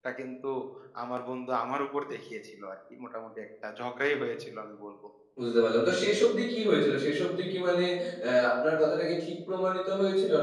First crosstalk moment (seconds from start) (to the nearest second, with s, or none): none